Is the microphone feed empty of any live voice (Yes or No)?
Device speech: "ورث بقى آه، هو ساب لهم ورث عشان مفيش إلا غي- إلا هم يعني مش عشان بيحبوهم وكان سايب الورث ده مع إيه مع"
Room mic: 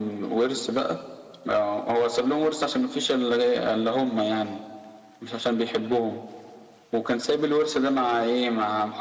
Yes